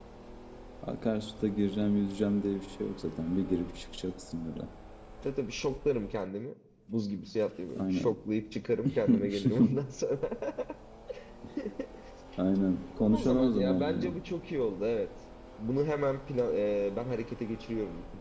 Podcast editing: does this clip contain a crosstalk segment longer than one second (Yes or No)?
Yes